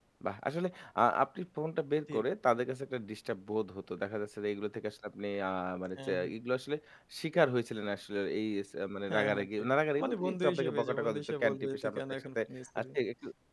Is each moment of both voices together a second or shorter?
No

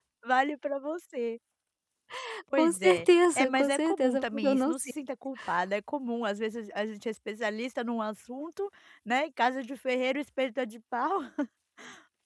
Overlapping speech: Yes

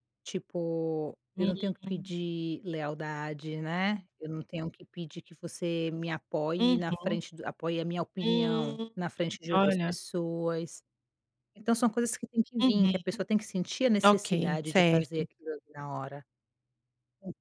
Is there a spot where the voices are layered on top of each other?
Yes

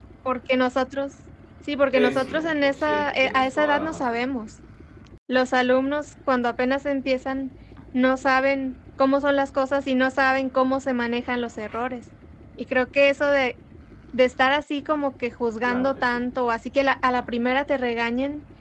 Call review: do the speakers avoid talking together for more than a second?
No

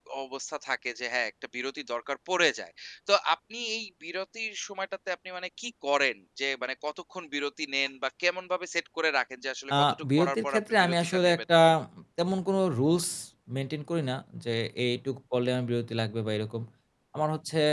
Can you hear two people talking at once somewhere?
Yes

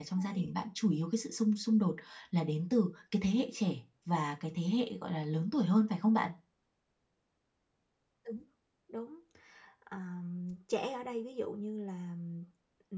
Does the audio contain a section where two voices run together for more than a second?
No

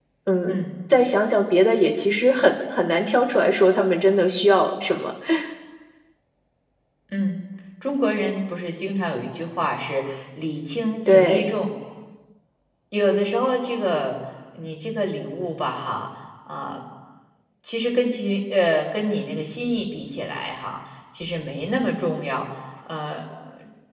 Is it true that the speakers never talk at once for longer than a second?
Yes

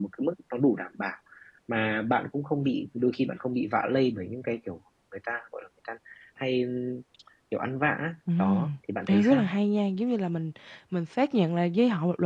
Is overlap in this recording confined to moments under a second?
Yes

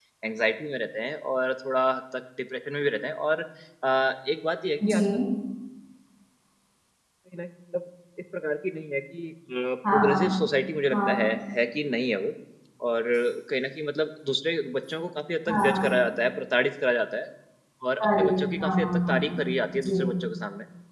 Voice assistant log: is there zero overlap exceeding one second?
No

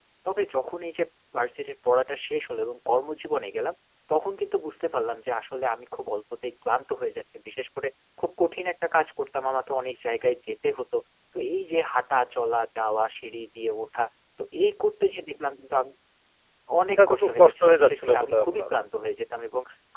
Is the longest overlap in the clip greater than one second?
Yes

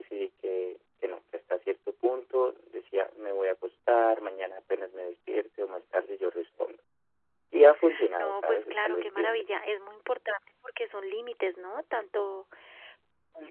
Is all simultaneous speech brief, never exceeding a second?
No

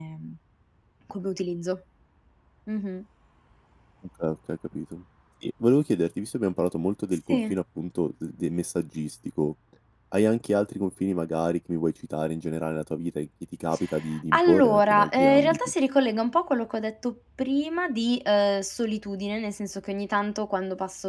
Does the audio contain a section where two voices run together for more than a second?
Yes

